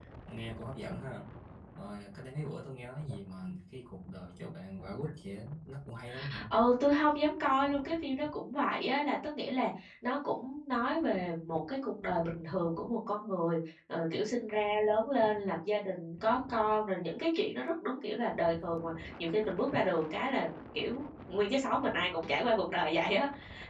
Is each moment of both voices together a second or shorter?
Yes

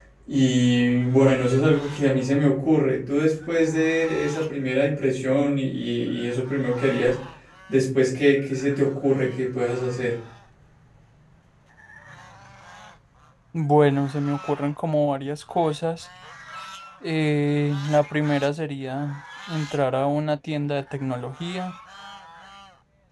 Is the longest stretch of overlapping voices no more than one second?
Yes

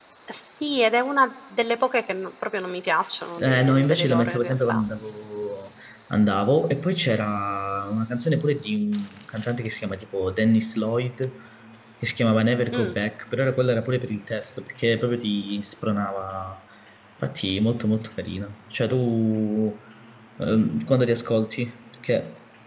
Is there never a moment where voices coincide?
No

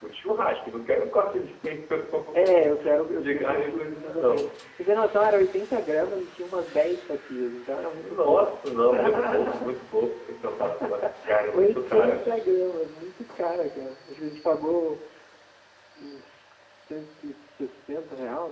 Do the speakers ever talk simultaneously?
Yes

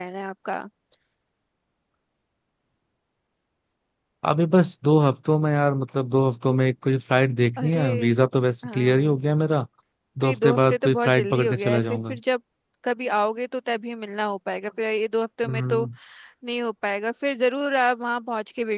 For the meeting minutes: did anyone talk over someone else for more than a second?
Yes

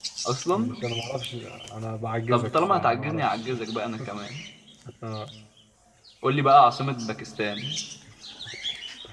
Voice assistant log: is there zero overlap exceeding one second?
No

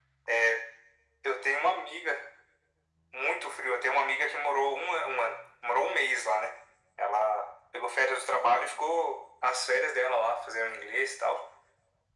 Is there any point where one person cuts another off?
No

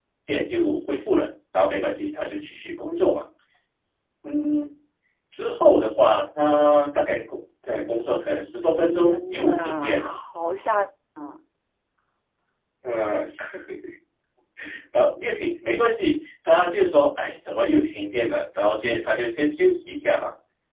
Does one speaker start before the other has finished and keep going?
Yes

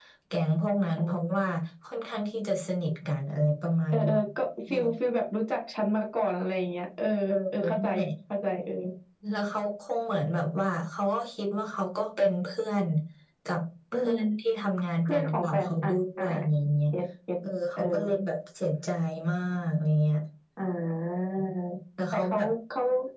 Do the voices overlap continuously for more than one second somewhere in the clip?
Yes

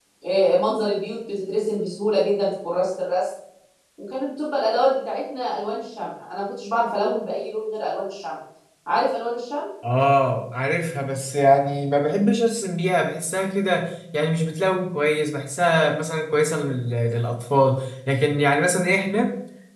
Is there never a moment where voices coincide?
Yes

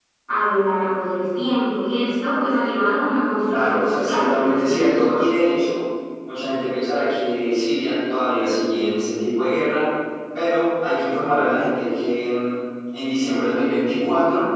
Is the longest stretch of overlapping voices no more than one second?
No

